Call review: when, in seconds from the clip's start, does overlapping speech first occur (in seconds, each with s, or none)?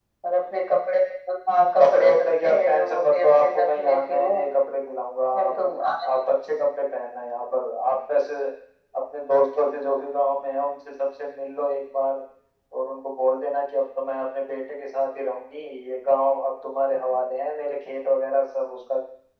1.8 s